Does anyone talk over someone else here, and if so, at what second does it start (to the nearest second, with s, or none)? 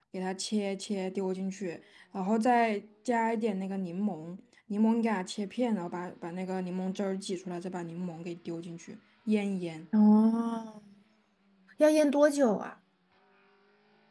none